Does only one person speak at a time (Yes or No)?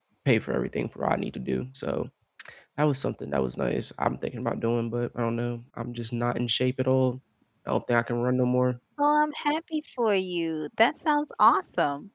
Yes